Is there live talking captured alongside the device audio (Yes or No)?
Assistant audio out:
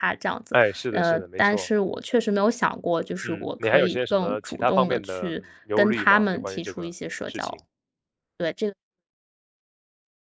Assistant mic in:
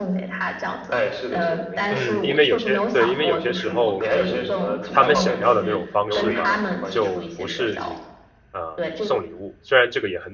Yes